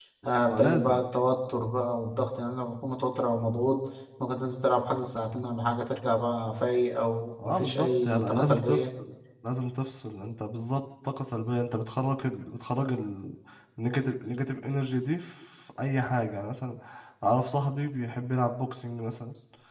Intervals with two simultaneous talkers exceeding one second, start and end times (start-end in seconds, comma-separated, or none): 7.5-8.9